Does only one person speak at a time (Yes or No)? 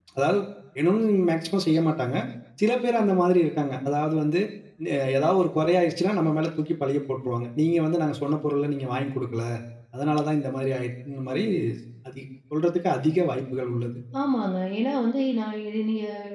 Yes